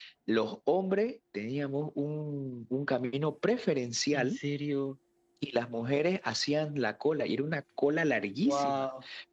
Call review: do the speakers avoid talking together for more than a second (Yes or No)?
Yes